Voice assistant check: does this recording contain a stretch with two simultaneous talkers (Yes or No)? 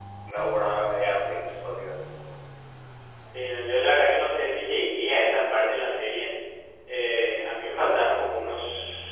No